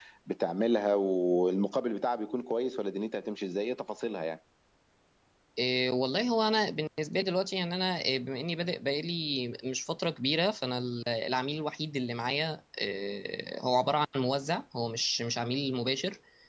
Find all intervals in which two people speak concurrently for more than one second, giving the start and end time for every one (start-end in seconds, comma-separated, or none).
none